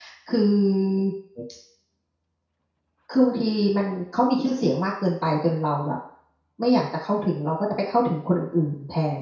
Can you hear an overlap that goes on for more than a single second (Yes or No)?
No